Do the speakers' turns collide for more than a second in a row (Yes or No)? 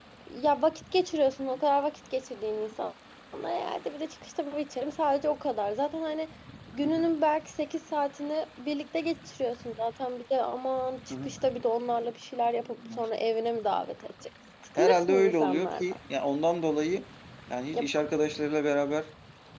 Yes